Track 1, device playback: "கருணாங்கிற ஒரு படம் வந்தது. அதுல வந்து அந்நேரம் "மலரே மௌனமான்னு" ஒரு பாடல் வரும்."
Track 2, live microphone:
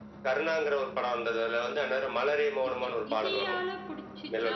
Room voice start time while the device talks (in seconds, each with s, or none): 2.7 s